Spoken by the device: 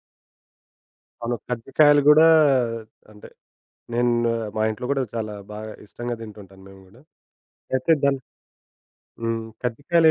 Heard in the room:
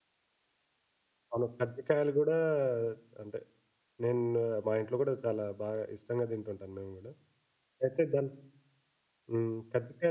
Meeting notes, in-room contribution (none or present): none